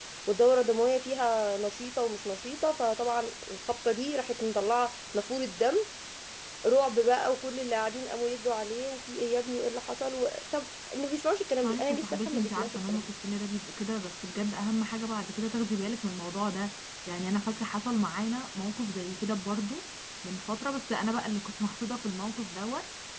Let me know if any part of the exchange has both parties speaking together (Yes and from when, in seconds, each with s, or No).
Yes, from 11.6 s